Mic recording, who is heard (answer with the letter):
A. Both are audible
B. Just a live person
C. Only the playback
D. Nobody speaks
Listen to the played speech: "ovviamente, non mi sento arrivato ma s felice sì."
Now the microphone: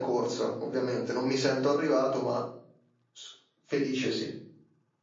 C